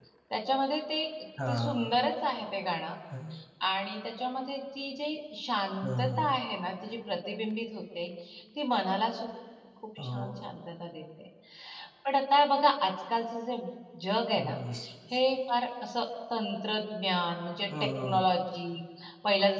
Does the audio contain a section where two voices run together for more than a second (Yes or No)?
No